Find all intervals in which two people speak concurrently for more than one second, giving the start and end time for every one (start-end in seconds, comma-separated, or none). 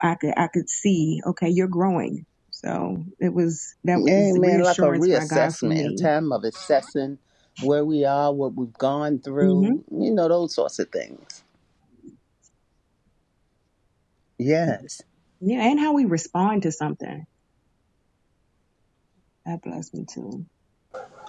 4.0-6.1